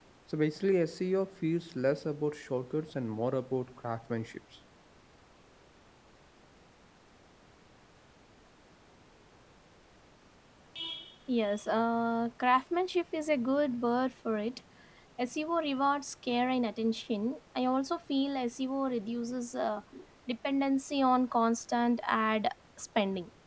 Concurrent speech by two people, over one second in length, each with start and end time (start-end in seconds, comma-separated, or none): none